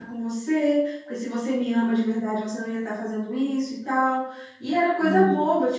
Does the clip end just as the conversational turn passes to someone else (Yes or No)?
No